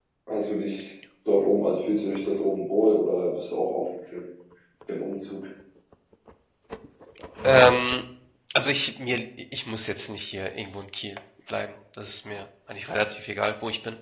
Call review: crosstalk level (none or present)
none